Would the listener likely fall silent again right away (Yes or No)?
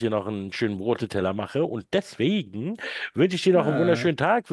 Yes